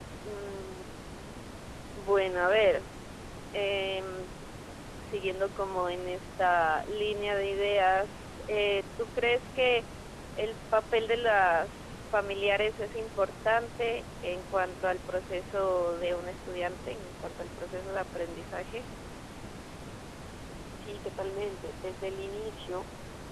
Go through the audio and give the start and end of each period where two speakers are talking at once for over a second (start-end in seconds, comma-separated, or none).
none